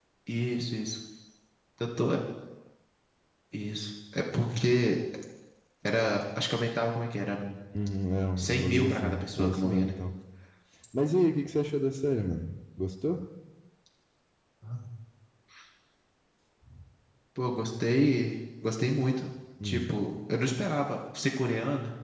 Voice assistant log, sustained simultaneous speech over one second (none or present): present